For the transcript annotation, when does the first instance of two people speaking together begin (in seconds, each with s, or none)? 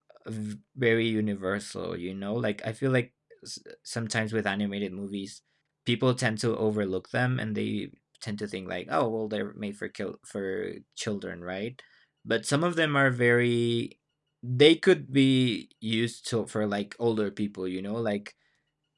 none